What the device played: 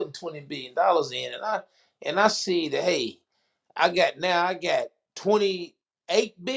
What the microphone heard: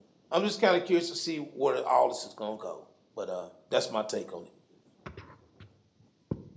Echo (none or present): none